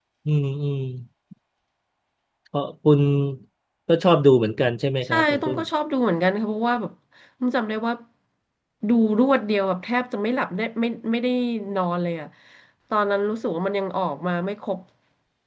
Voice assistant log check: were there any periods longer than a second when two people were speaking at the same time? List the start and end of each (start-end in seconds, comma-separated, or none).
none